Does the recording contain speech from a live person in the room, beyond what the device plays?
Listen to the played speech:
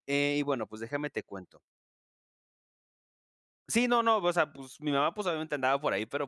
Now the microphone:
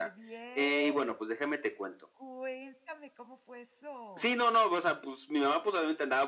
Yes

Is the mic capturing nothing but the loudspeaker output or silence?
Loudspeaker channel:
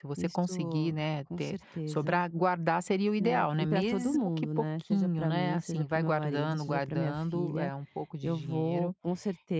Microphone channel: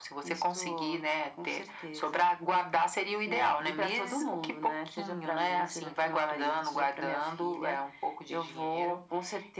Yes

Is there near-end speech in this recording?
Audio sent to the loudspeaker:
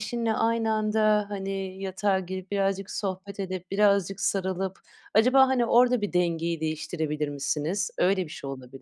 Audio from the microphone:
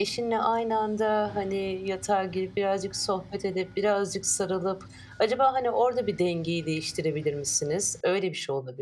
No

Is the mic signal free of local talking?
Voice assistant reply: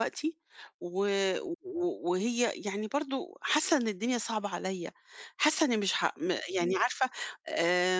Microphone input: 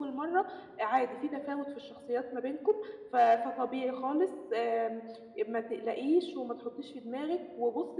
No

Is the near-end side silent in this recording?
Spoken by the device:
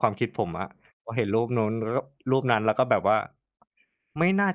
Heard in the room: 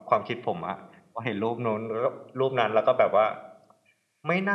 Yes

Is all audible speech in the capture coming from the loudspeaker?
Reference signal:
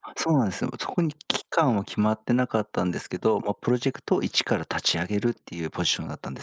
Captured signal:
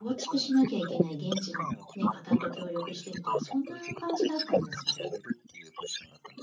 No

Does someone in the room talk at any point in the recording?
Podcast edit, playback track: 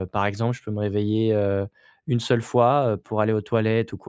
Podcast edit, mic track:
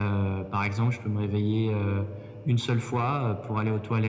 No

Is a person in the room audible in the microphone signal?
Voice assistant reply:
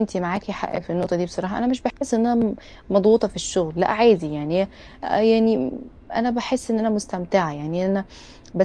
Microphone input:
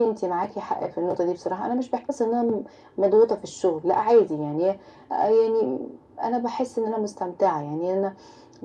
No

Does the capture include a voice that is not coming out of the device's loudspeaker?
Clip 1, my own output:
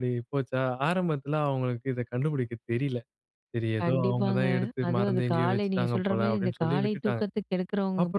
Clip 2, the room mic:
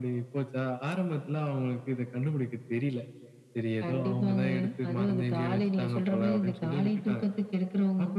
No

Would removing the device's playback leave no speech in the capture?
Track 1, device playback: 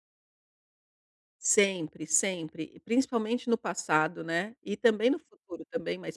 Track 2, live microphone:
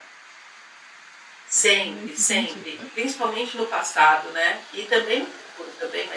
No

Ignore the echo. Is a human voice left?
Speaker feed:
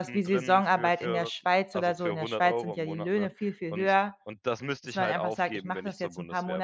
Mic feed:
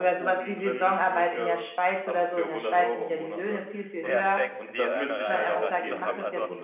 Yes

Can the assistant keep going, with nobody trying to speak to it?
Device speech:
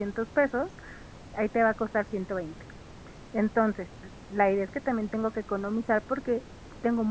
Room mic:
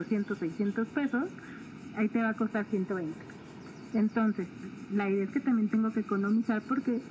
Yes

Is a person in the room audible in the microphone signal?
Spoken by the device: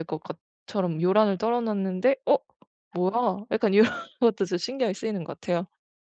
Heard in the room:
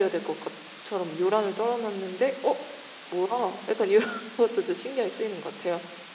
No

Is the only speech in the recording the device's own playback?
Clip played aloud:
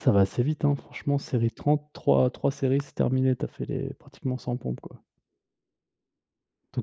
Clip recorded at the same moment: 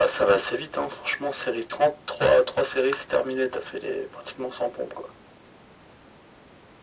Yes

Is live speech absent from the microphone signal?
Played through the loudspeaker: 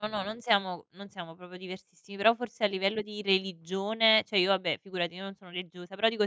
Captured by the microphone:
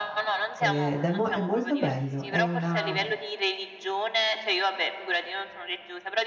No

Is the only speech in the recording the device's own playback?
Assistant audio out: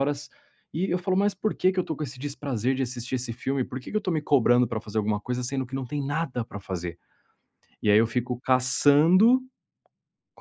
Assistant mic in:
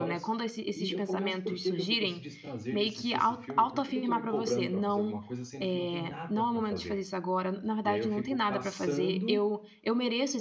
No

